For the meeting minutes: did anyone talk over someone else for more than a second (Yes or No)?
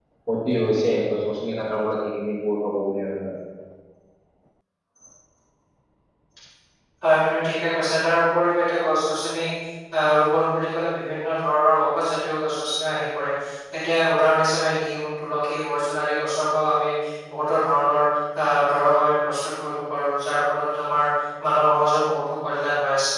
No